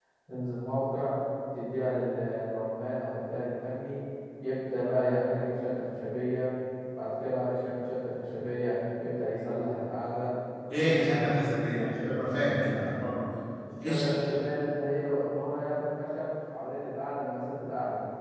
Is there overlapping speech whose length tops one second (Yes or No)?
Yes